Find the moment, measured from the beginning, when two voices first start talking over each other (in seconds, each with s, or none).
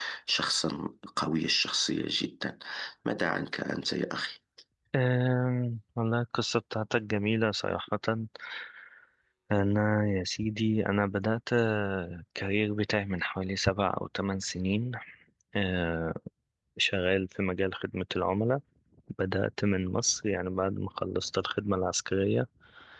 none